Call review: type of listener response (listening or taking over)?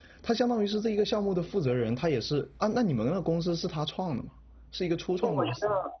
taking over